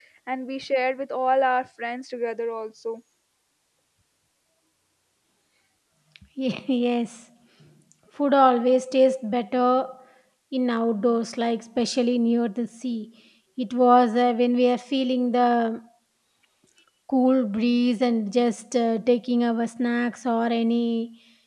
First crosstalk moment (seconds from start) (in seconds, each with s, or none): none